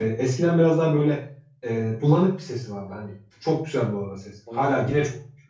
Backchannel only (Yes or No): Yes